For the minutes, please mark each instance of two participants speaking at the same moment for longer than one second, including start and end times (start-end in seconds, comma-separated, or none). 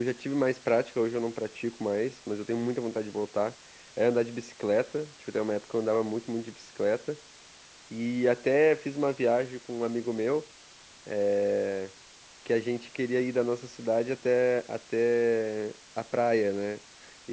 none